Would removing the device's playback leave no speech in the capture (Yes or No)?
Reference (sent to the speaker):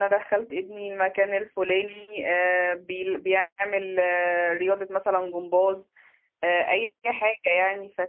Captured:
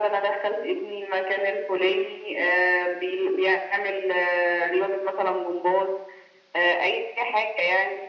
Yes